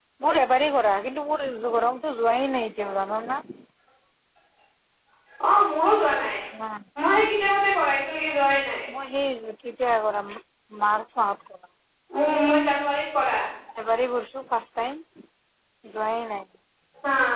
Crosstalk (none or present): none